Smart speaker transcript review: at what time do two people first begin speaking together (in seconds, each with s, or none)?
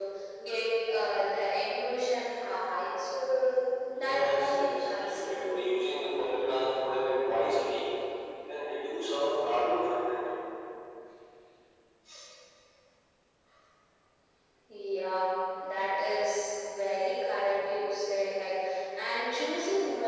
4.0 s